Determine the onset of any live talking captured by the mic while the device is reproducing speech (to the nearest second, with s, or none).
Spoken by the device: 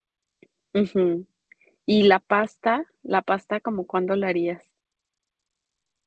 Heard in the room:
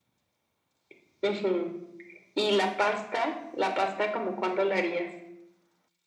none